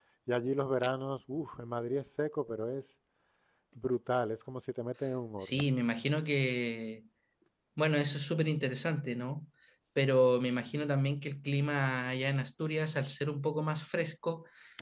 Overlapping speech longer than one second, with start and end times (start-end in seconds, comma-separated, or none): none